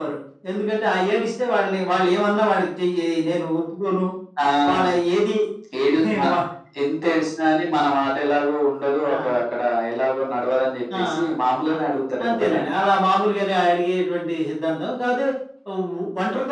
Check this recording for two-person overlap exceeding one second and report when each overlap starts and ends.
none

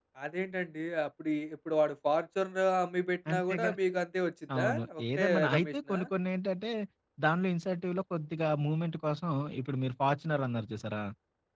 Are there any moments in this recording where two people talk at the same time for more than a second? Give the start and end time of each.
4.6-6.0

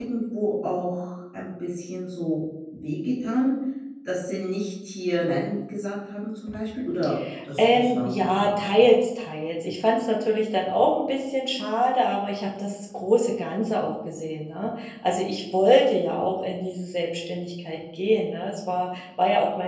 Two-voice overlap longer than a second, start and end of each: 7.6-8.8

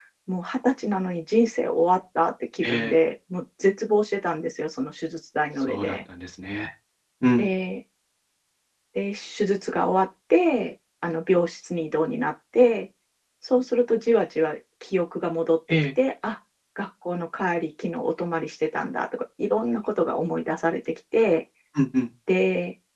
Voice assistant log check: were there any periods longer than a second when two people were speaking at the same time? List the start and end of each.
none

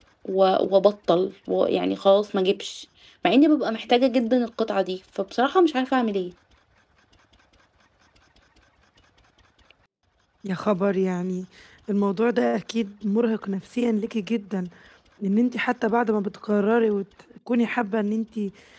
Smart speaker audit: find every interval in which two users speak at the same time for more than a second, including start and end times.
none

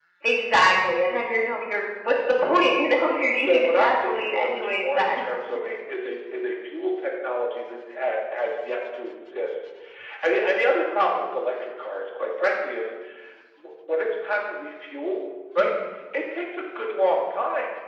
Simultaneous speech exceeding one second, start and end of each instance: 3.4-5.2

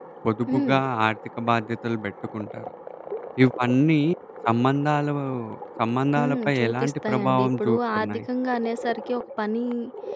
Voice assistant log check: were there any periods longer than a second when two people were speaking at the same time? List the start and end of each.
6.2-8.2

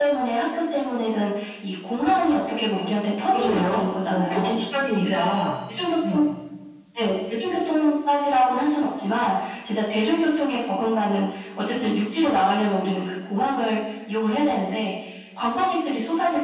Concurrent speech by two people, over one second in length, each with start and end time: 3.2-4.6

